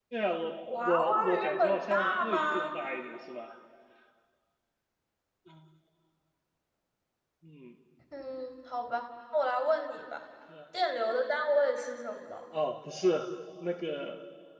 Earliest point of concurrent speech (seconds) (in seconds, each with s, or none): 0.8 s